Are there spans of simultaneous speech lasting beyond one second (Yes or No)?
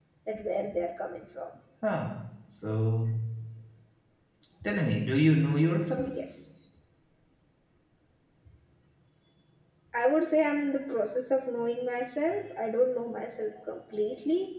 No